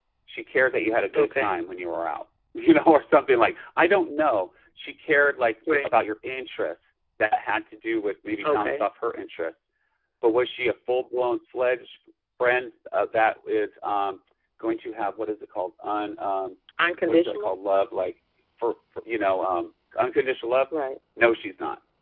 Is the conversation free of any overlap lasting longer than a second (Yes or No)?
Yes